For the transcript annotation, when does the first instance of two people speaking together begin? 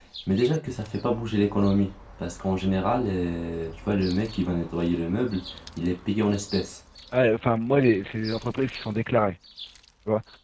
none

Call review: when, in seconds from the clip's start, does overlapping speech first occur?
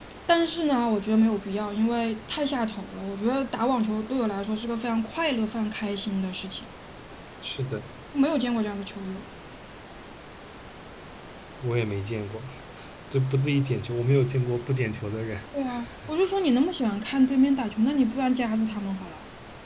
none

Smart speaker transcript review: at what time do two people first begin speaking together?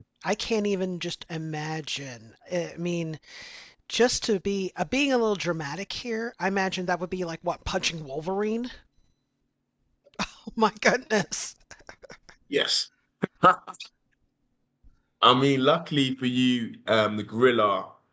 none

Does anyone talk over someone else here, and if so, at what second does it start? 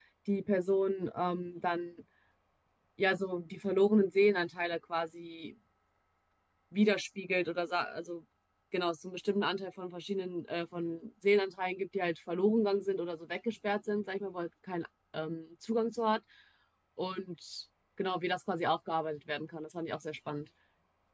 none

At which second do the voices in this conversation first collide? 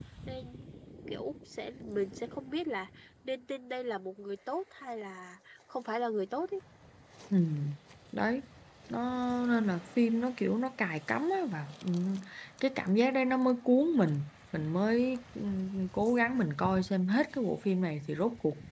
none

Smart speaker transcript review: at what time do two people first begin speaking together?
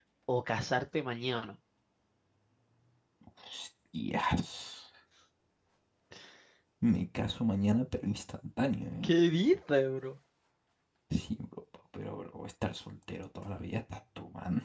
none

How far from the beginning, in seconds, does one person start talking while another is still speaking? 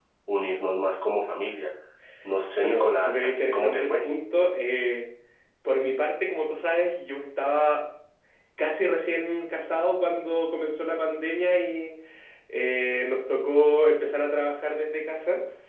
3 s

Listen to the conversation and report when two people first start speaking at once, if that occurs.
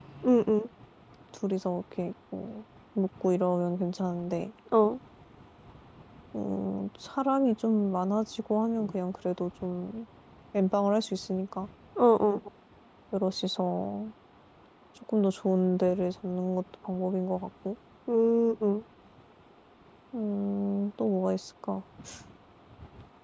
none

